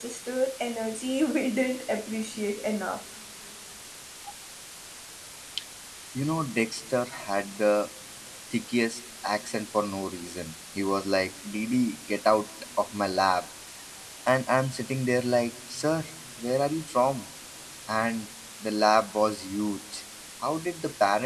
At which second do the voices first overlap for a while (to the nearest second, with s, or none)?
none